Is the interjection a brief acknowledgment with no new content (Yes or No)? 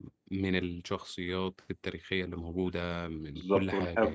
No